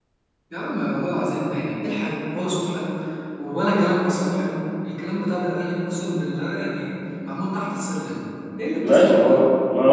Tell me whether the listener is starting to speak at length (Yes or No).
Yes